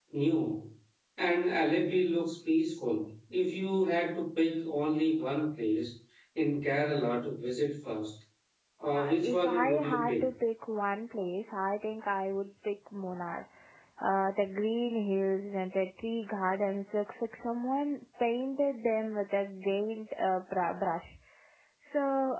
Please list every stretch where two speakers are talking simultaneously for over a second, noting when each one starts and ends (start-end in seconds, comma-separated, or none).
8.9-10.2